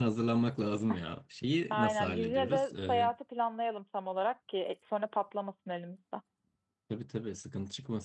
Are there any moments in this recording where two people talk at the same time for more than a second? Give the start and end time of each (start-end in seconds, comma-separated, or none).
1.7-3.1